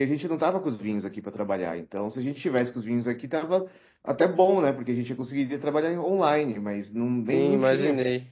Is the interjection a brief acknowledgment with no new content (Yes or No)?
No